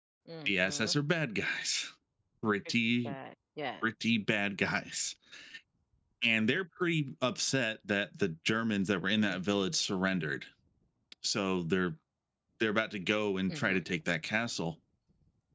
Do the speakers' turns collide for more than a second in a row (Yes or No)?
No